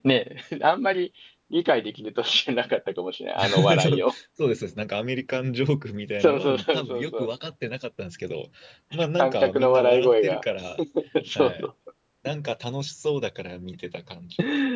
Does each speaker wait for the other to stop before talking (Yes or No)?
No